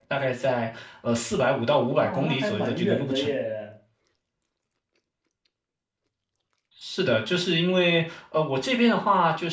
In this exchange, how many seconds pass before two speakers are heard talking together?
2 s

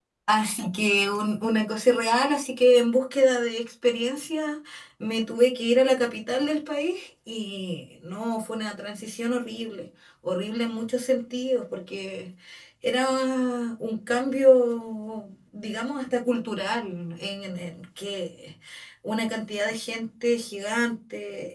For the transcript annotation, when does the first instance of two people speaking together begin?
none

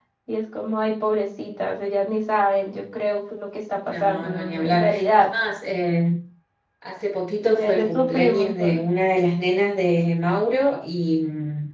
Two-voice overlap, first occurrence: 4 s

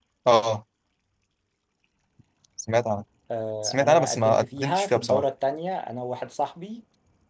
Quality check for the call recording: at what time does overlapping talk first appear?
4 s

